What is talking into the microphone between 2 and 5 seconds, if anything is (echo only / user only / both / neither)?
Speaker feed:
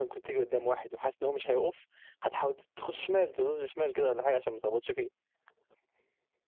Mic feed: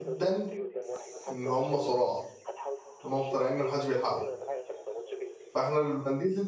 both